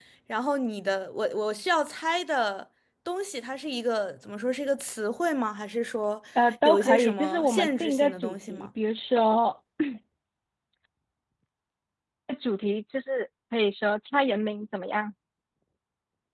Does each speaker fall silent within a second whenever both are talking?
No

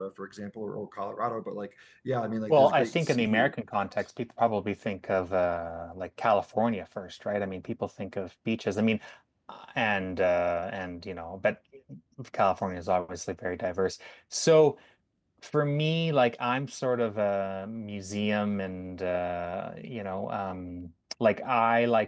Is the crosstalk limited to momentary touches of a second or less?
No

